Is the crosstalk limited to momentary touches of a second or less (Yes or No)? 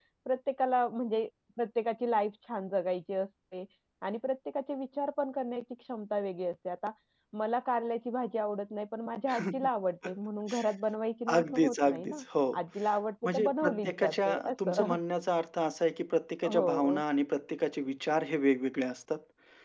No